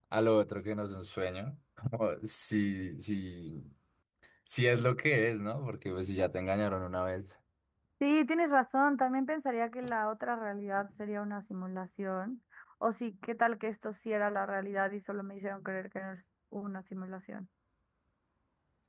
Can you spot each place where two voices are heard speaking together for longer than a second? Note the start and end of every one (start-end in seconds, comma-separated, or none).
none